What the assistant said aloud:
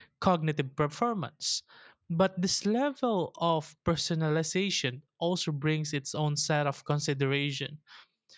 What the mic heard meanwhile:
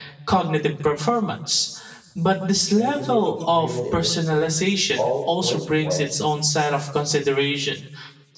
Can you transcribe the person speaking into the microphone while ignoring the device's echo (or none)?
and the community driven initiatives all point towards